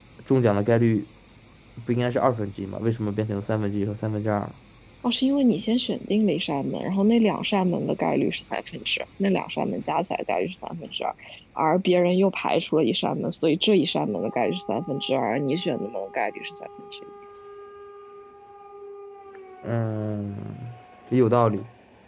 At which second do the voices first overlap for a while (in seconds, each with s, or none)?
none